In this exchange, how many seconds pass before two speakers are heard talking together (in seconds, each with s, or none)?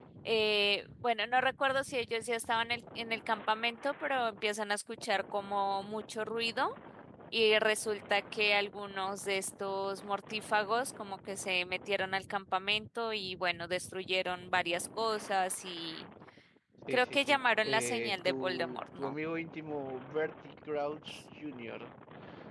16.9 s